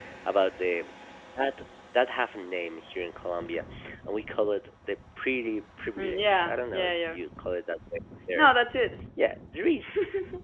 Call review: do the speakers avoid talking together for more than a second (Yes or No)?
No